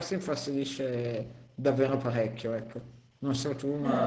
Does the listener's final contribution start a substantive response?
Yes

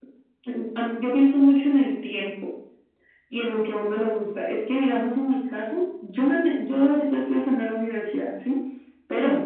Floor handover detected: No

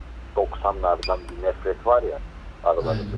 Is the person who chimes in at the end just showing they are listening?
Yes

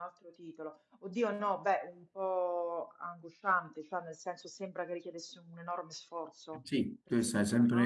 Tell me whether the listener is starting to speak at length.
Yes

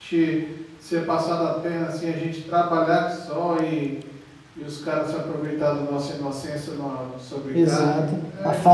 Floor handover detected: Yes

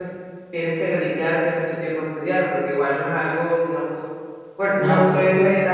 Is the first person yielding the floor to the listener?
No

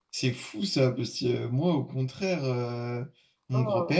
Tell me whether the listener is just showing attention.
Yes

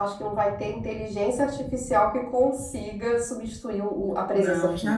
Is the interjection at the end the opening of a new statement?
Yes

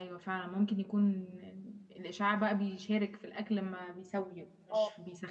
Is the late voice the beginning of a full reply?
Yes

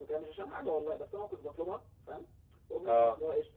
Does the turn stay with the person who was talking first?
Yes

